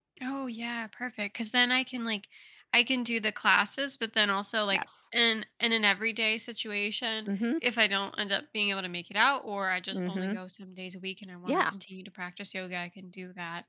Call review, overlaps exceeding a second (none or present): none